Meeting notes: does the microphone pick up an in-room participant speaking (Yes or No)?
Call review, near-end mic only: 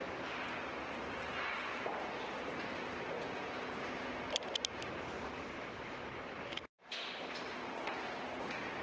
No